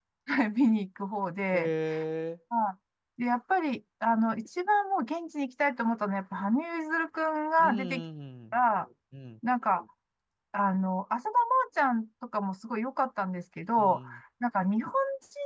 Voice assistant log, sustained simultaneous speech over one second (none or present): none